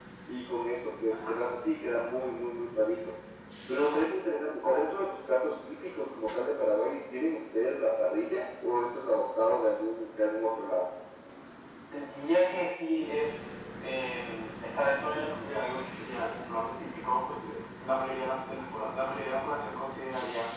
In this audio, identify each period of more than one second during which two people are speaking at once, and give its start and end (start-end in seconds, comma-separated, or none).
none